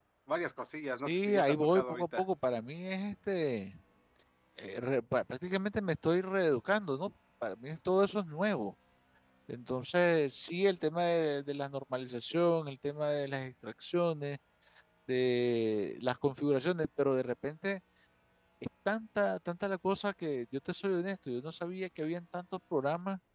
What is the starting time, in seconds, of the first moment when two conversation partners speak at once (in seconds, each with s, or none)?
1.0 s